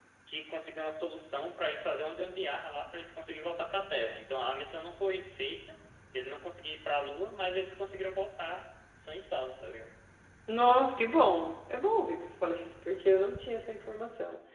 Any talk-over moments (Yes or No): No